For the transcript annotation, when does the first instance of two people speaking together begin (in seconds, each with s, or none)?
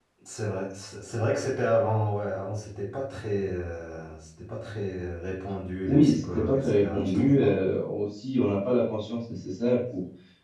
5.9 s